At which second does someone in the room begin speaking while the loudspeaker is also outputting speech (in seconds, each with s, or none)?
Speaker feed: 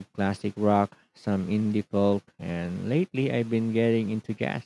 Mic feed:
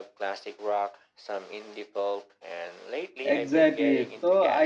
3.2 s